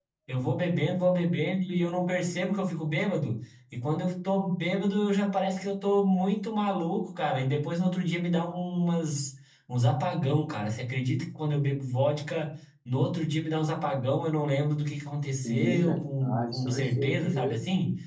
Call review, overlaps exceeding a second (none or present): present